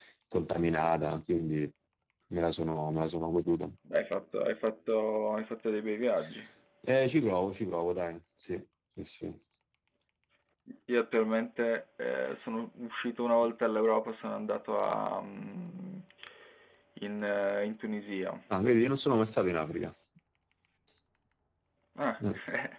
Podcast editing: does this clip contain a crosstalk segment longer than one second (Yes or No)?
No